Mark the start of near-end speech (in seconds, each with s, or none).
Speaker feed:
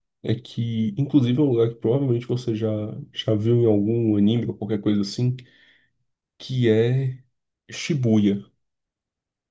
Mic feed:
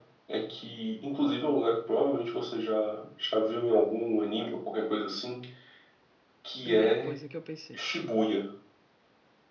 6.7 s